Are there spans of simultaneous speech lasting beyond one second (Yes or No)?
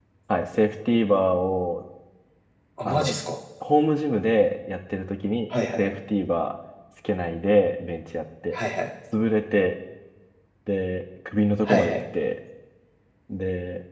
No